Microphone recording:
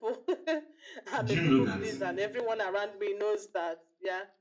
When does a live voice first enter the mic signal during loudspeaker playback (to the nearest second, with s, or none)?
1 s